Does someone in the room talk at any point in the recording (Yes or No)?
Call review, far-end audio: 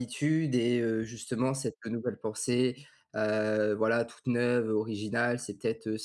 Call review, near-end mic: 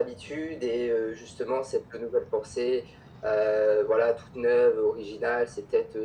No